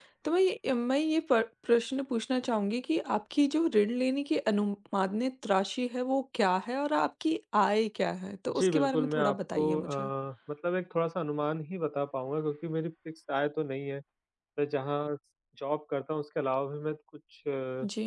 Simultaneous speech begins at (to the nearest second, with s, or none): 8 s